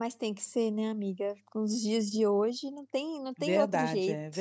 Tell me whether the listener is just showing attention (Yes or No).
No